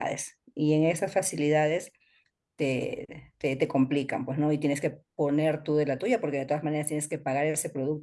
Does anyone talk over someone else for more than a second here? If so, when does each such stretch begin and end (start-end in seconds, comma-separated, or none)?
none